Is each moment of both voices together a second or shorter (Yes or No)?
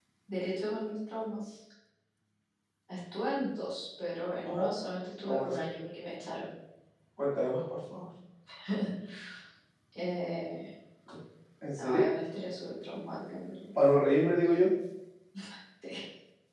Yes